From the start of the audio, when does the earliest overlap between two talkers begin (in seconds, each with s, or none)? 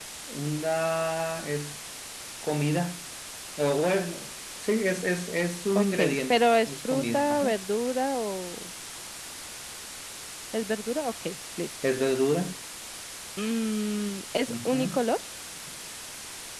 5.8 s